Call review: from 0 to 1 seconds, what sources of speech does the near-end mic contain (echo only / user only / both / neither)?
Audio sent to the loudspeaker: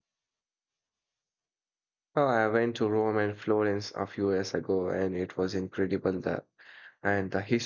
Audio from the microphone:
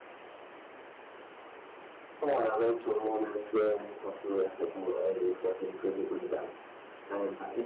neither